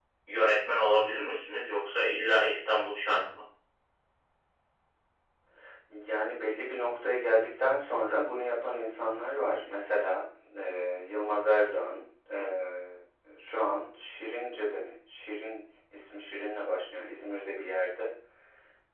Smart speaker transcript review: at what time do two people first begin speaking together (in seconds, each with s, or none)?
none